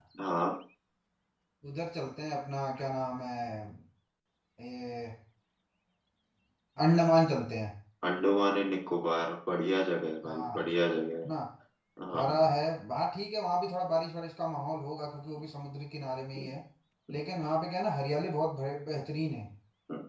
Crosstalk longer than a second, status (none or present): none